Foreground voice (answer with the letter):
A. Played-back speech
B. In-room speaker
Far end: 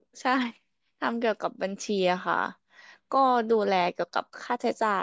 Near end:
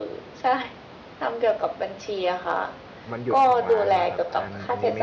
A